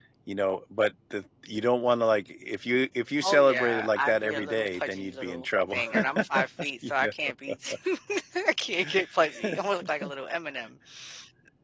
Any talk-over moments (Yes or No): Yes